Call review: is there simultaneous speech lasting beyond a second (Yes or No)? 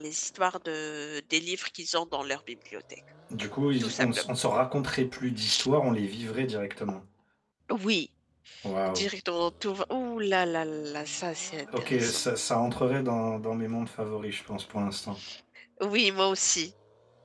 No